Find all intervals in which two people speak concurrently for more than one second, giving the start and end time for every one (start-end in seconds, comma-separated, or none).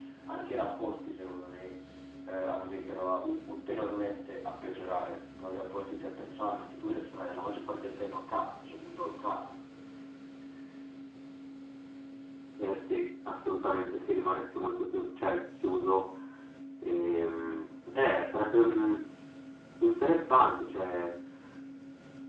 none